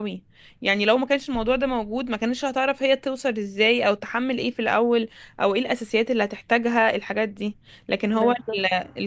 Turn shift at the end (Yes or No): No